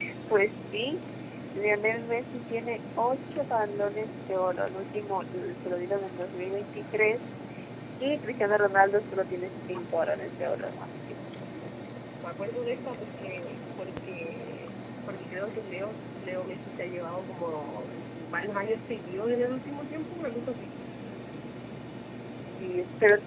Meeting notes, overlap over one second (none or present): none